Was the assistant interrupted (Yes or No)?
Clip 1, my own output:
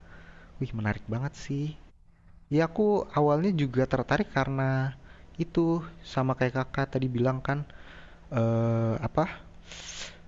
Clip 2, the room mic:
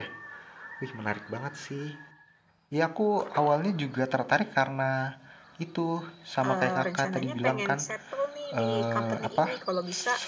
Yes